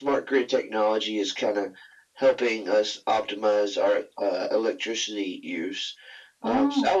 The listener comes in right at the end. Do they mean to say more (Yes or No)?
No